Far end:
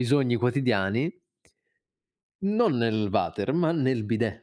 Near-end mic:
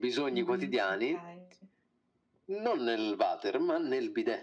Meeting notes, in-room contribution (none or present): present